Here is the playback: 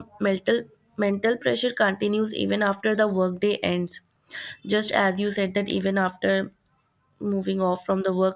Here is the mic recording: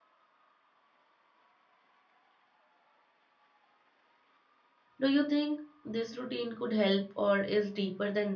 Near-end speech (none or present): present